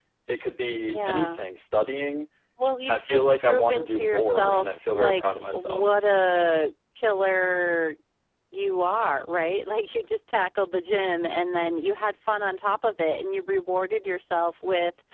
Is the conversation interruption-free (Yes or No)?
No